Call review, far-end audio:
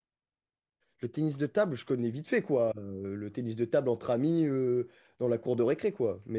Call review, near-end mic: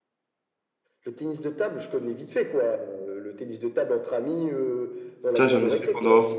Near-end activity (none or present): present